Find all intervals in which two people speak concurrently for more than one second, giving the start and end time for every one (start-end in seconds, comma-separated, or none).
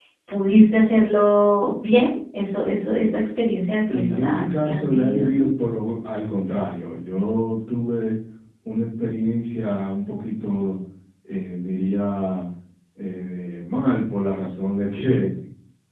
3.9-5.5